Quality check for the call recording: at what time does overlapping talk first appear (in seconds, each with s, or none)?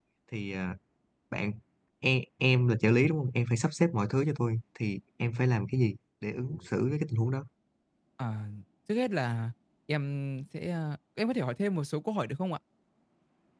none